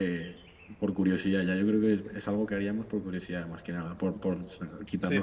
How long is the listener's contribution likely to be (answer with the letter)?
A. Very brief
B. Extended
B